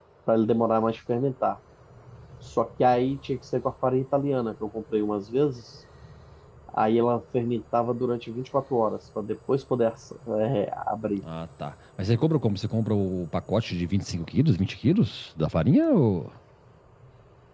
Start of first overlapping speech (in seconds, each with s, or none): none